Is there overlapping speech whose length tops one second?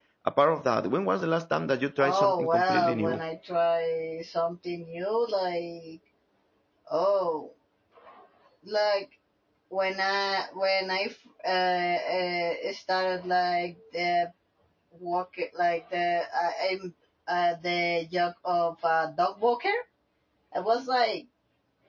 Yes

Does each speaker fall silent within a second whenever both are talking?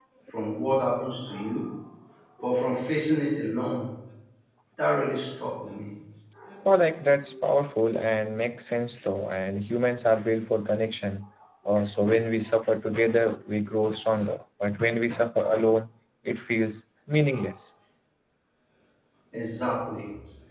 Yes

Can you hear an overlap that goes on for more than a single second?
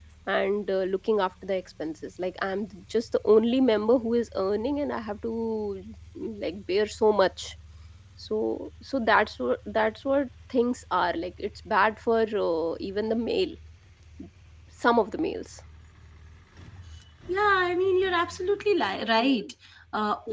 No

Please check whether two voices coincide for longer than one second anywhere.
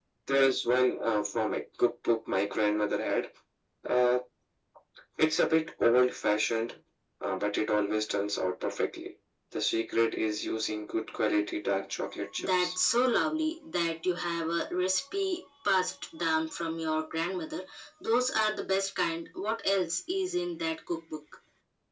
No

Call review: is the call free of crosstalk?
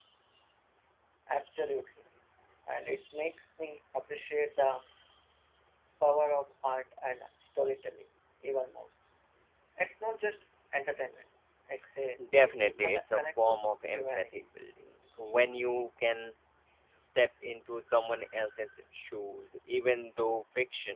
No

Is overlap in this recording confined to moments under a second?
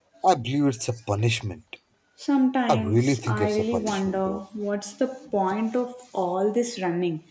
No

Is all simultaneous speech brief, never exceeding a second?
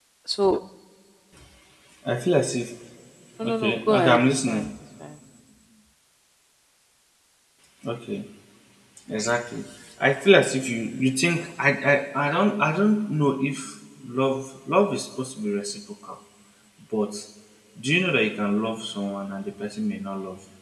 No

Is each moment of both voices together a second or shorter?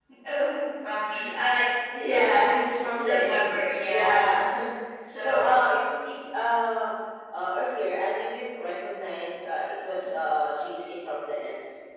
No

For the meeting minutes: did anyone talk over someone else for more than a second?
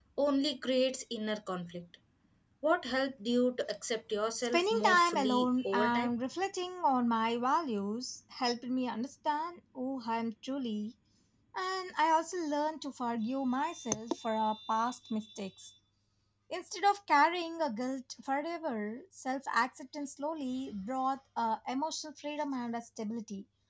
Yes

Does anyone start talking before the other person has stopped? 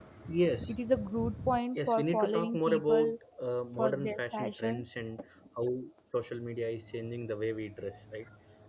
Yes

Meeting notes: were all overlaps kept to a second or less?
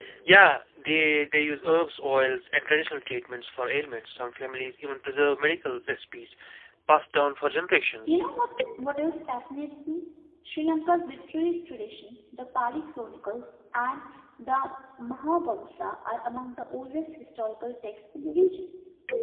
Yes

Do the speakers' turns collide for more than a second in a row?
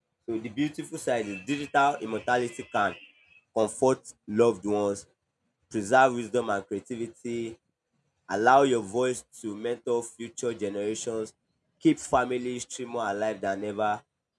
No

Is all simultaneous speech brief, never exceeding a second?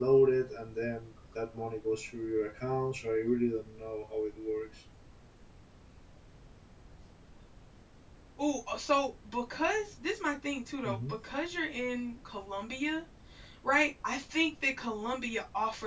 Yes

